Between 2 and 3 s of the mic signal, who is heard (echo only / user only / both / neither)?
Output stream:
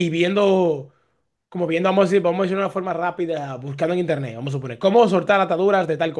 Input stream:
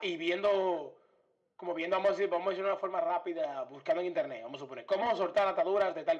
echo only